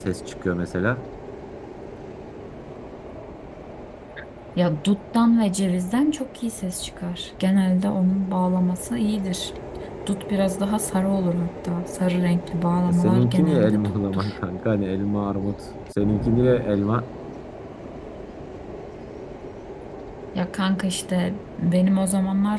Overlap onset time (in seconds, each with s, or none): 13.0 s